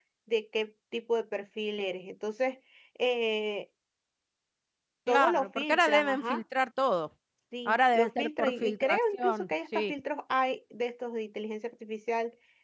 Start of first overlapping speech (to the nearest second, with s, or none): 5 s